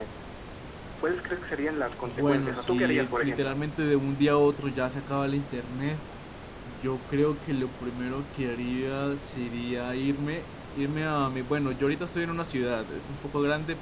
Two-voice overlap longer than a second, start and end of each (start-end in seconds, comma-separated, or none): 2.0-3.5